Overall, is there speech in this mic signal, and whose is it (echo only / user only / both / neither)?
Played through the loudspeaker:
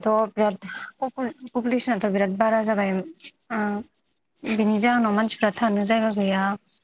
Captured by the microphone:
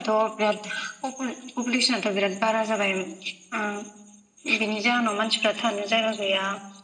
echo only